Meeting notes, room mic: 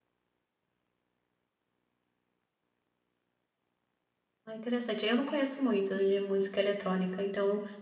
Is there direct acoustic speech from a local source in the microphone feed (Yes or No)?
Yes